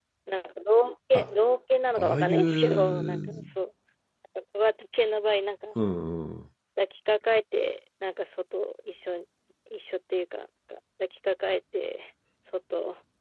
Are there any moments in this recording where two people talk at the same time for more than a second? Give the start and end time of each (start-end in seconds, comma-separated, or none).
1.9-3.3